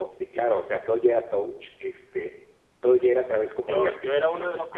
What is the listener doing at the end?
taking over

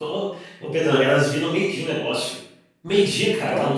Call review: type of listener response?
listening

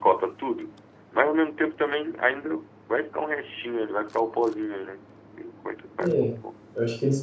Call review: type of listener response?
taking over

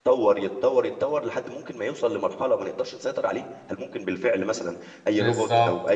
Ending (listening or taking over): taking over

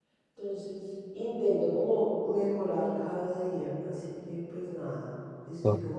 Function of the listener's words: listening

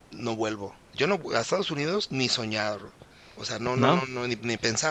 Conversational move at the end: listening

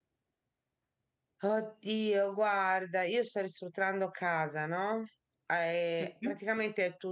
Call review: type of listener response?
listening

